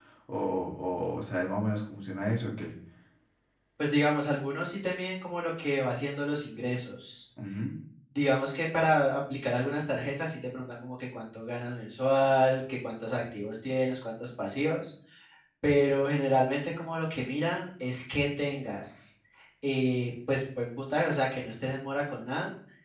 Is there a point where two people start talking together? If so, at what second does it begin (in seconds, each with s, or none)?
none